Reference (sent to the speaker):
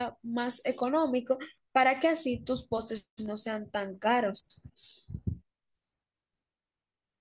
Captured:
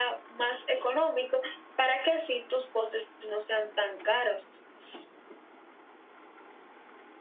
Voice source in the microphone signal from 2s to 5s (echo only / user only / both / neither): echo only